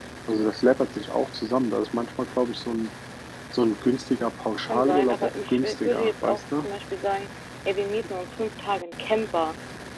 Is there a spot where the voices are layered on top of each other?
Yes, from 4.7 s

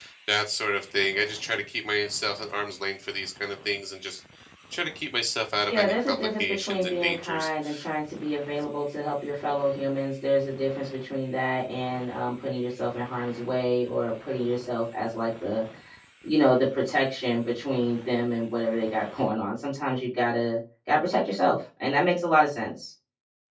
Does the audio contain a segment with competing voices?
Yes, from 5.7 s

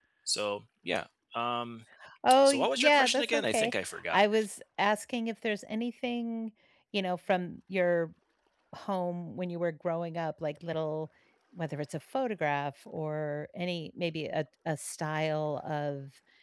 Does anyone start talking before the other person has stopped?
Yes, from 2.5 s

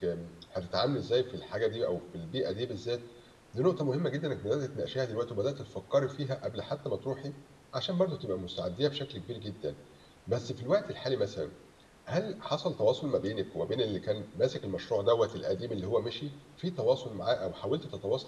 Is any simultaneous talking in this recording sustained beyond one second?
No

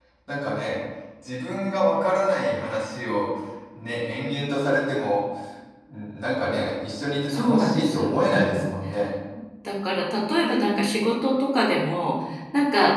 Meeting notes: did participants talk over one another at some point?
Yes, from 7.3 s

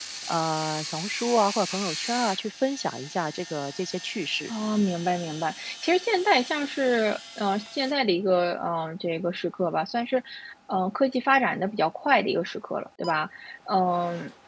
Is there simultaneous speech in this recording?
No

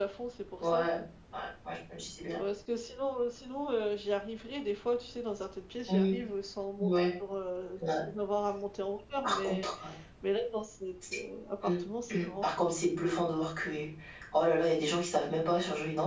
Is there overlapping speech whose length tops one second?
No

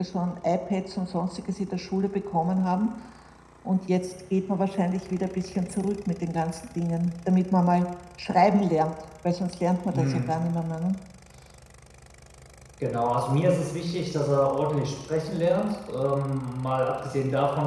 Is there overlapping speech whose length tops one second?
No

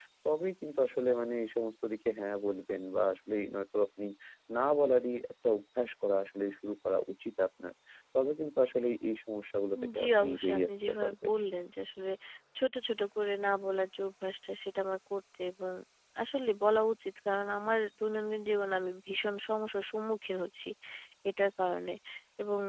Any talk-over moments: Yes, from 9.8 s

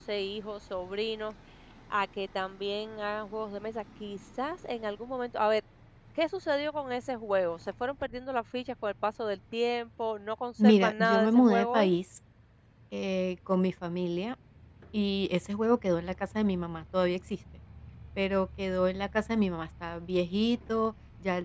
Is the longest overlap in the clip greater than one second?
Yes, from 10.6 s

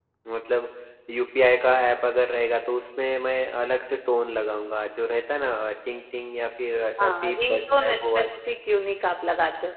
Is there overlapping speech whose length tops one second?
Yes, from 7.0 s

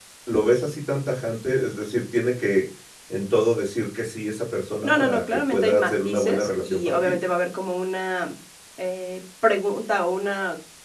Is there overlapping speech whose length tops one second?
Yes, from 4.8 s

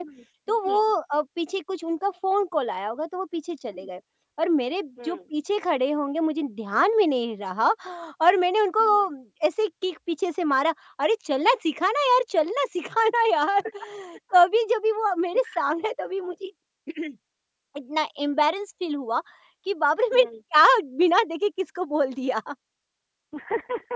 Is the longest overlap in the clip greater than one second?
No

